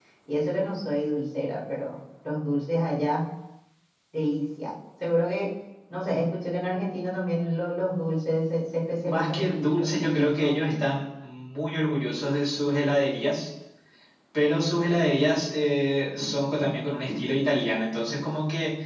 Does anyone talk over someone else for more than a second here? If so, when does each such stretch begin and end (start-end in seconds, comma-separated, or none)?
9.1-10.6